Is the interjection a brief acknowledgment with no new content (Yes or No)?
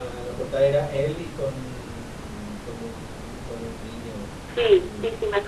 No